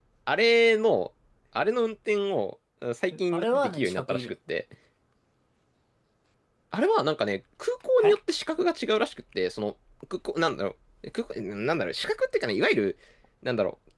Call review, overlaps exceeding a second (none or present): present